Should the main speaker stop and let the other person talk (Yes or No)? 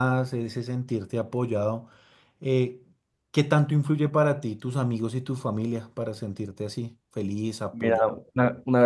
Yes